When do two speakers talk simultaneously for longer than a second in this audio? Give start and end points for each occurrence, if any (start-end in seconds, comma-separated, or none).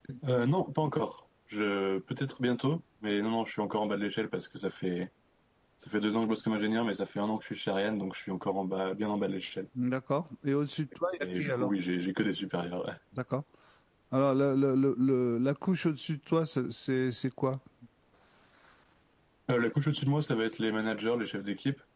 none